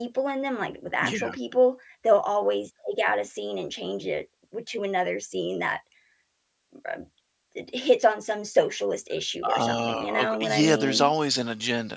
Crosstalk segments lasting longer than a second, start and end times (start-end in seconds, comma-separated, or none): 9.5-11.1